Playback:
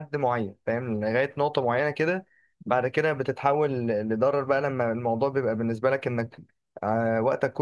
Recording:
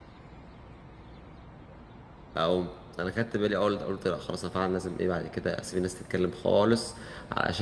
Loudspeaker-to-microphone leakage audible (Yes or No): No